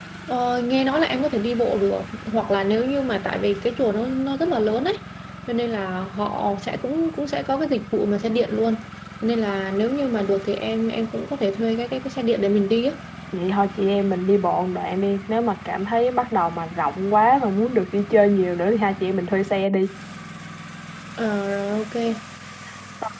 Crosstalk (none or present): none